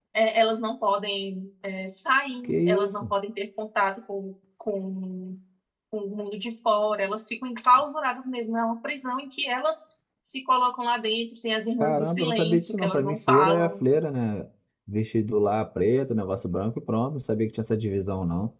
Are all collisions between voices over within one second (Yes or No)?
No